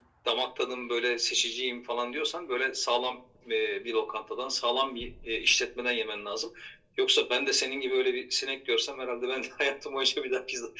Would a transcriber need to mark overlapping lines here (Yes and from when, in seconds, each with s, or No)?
No